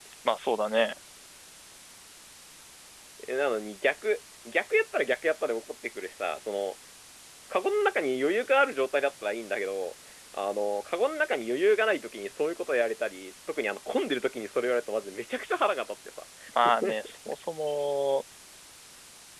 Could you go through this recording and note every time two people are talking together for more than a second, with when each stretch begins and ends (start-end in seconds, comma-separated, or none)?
none